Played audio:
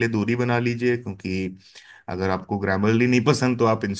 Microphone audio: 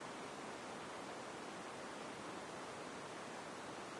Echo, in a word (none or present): none